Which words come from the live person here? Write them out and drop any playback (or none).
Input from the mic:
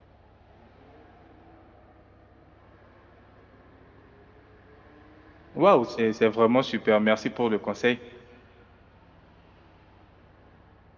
Waouh, c'est, c'est vraiment super. Merci pour le conseil.